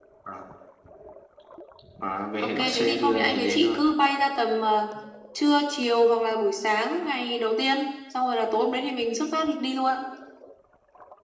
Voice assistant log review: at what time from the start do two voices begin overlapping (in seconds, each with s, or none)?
2.4 s